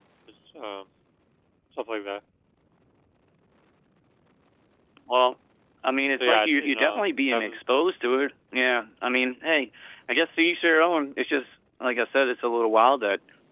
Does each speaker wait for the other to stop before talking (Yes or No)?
No